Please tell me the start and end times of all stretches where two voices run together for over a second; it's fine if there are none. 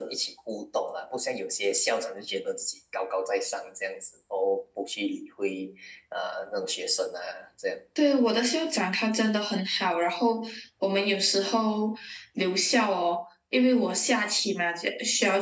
none

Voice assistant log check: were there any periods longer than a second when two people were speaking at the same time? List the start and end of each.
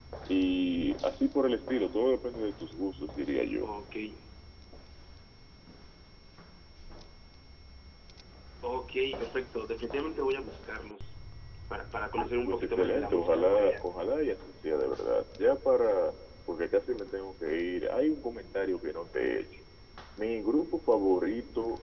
12.4-13.7

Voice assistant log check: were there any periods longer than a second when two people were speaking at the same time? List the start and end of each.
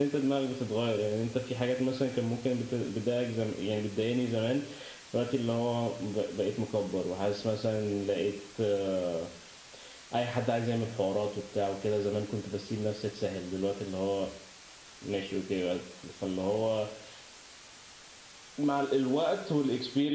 none

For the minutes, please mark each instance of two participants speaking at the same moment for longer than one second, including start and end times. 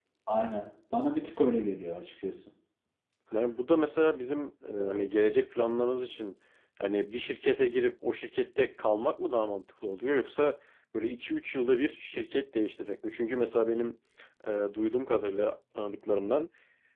none

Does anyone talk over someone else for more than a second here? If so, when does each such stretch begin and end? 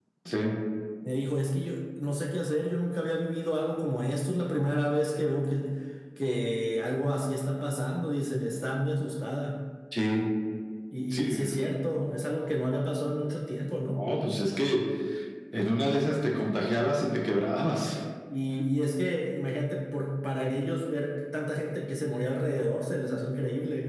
none

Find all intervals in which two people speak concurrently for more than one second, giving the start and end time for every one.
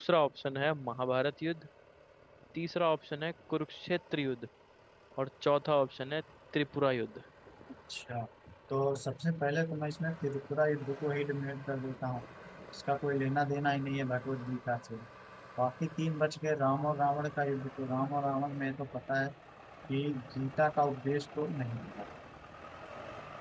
none

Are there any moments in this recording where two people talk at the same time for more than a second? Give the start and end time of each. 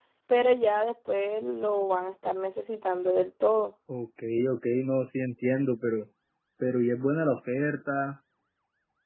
none

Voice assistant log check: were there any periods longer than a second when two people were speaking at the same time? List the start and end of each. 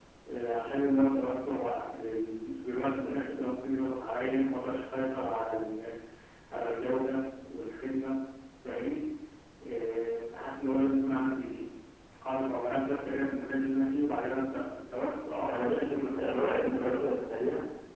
15.4-17.1

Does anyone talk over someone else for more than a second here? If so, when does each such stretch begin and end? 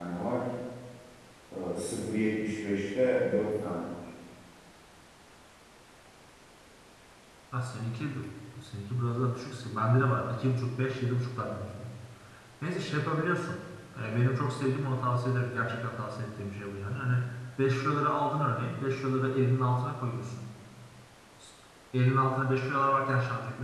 none

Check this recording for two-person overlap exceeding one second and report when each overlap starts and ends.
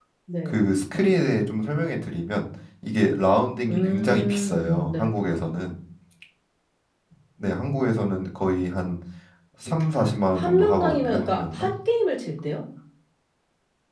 3.7-5.0, 10.4-11.7

